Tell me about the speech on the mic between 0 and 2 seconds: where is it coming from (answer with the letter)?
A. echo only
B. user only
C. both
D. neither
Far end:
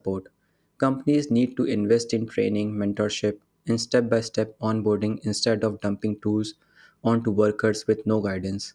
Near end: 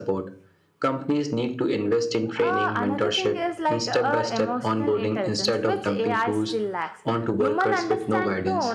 A